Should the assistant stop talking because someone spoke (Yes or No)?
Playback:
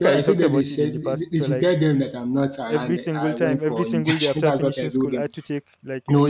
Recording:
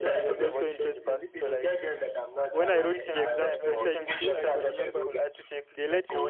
Yes